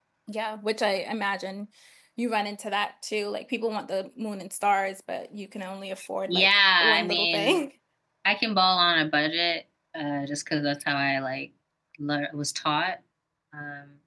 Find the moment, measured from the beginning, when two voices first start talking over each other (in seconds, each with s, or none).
6.3 s